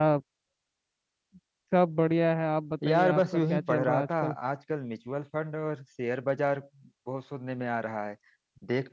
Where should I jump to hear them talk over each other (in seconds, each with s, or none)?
2.8 s